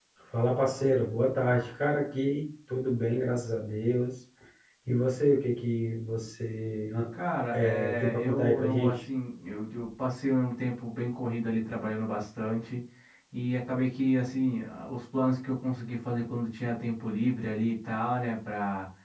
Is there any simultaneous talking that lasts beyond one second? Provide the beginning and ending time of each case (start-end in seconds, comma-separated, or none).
7.5-9.0